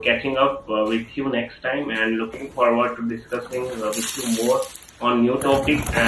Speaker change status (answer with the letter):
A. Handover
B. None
B